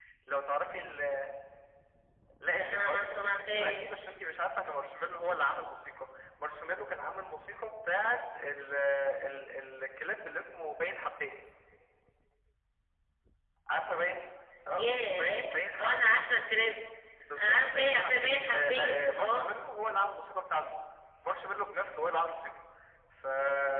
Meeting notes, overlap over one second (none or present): present